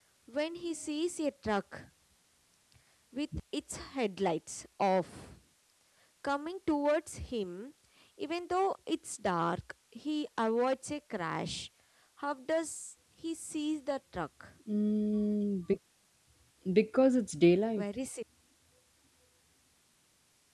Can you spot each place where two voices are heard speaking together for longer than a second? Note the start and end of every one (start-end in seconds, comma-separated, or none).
none